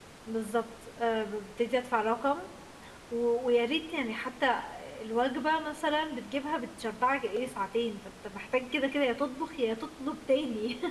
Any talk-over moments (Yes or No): No